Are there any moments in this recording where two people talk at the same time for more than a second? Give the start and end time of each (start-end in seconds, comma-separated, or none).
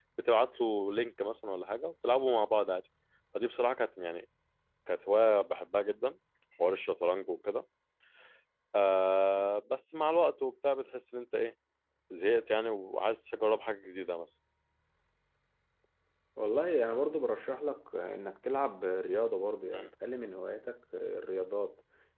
none